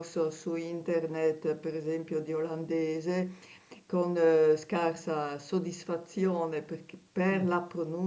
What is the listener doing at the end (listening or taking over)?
listening